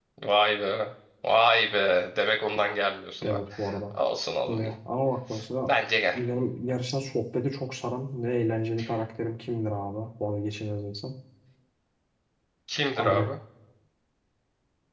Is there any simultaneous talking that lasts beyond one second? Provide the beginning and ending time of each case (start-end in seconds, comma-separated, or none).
none